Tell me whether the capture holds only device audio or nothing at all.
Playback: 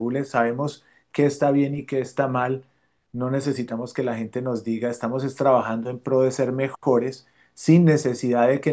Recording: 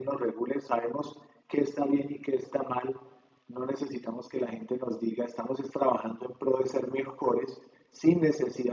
Yes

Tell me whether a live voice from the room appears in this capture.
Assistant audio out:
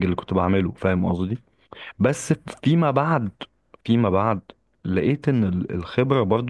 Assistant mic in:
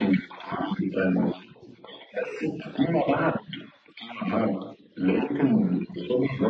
No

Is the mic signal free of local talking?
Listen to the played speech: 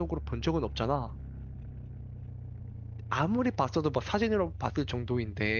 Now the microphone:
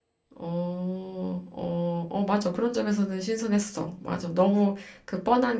No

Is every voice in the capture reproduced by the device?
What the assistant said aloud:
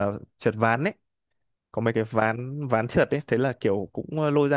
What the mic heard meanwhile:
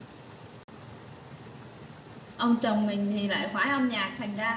No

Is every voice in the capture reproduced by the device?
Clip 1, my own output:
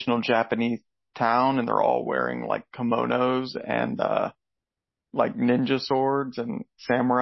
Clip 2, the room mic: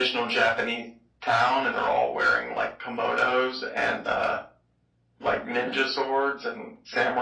Yes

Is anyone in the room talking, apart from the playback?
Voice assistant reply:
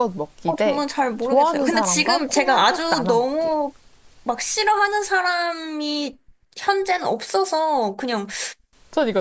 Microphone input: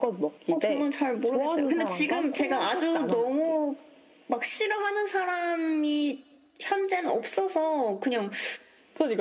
No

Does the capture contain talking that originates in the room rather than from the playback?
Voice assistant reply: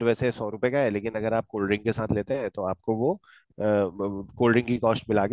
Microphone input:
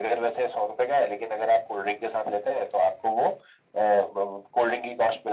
No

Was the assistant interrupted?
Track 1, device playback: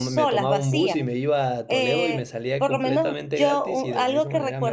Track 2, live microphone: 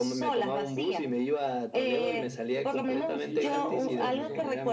Yes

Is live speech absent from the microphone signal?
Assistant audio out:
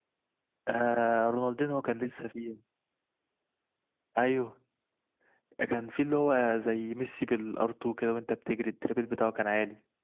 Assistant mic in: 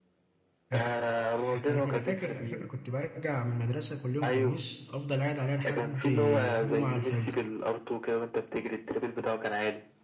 No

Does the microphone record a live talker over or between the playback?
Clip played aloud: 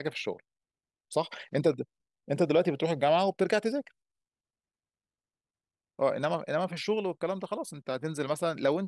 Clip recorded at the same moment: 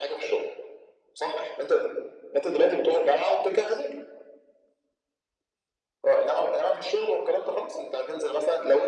No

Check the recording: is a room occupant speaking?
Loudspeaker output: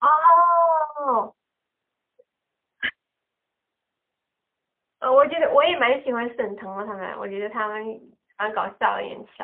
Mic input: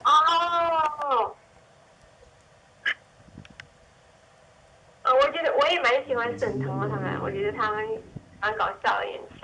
Yes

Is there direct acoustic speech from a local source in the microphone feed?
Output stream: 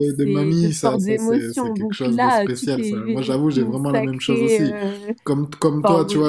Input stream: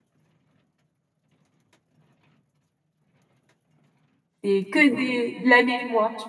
Yes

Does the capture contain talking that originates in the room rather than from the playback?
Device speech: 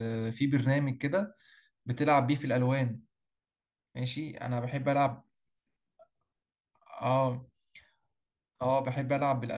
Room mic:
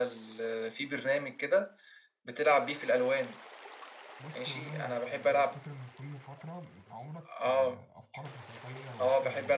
Yes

